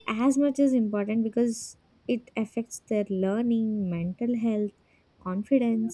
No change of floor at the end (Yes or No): Yes